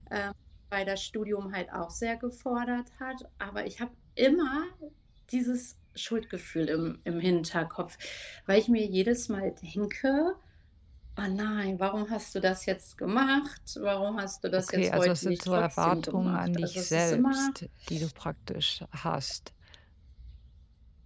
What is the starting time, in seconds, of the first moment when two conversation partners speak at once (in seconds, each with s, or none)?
14.7 s